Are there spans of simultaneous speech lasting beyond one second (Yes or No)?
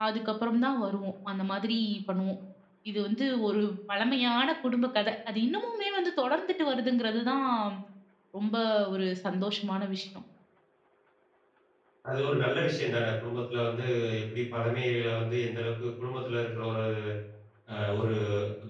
No